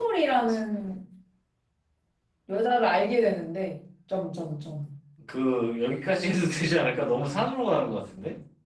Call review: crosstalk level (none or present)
none